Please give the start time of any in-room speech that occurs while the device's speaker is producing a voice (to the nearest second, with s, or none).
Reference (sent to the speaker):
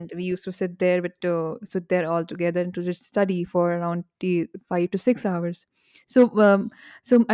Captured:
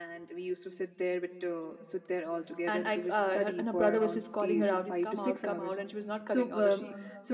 3 s